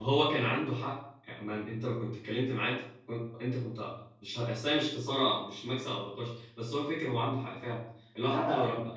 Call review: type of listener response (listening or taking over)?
listening